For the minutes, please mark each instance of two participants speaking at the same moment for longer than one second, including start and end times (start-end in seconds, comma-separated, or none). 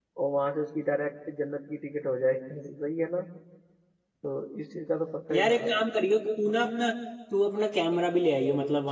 none